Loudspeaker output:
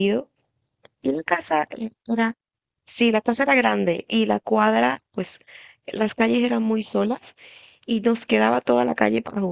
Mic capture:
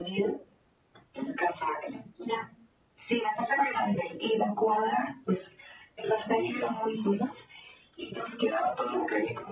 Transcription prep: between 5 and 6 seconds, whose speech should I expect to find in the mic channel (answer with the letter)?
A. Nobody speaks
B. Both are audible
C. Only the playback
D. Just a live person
C